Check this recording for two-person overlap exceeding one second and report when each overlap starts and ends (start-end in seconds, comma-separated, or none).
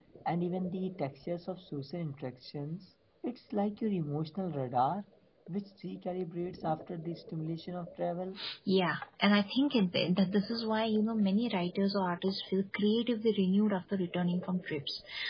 none